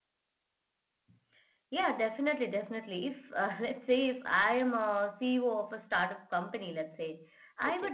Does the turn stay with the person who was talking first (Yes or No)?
Yes